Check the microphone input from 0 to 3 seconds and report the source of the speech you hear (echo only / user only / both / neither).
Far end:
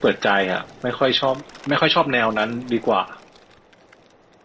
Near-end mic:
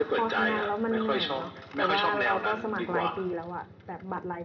both